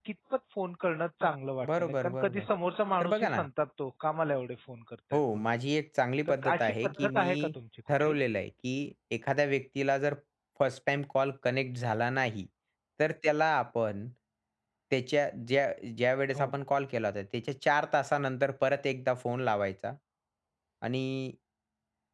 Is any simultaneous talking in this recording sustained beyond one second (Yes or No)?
Yes